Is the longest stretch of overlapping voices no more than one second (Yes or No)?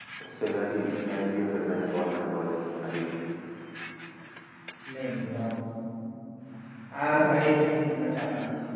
Yes